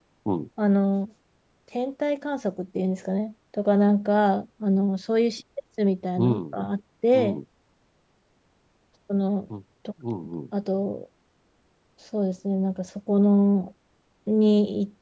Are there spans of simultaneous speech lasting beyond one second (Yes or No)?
No